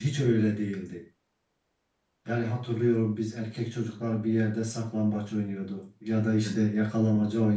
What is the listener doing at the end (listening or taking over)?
listening